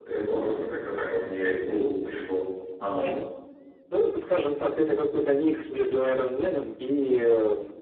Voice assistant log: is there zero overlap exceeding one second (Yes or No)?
Yes